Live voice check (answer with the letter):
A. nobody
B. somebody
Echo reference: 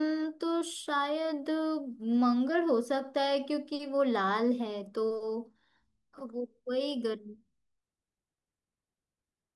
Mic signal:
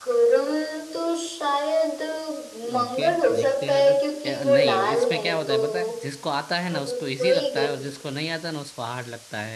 B